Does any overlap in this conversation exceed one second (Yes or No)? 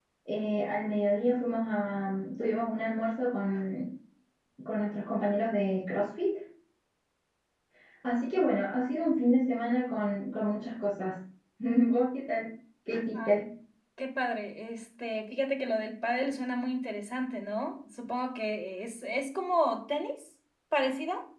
No